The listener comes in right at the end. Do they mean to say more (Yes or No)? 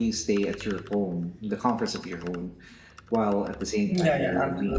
Yes